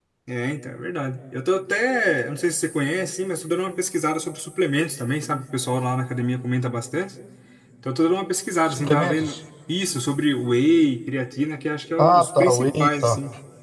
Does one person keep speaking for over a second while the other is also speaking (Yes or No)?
Yes